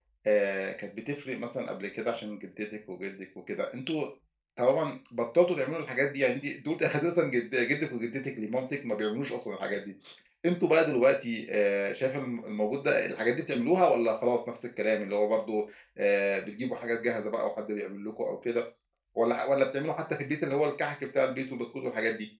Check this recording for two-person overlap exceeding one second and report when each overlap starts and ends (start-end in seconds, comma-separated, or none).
none